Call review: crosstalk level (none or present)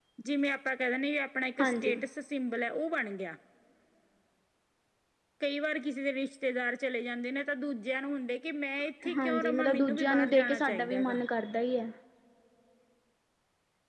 present